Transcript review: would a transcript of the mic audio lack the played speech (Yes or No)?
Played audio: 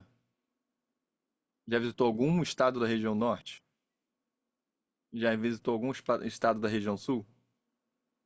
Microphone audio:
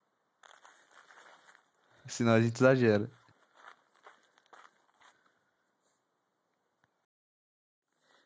Yes